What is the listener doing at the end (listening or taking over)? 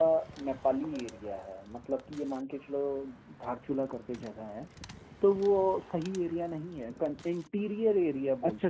taking over